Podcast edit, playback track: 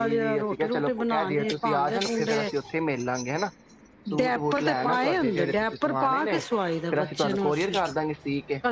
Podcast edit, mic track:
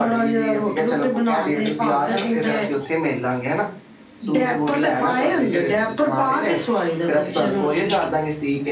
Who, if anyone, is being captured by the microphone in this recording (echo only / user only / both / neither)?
echo only